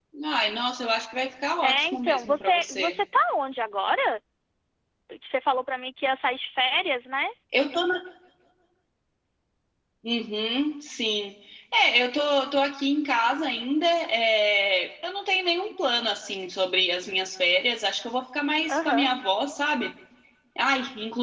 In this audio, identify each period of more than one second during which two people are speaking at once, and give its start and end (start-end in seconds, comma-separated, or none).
1.6-2.9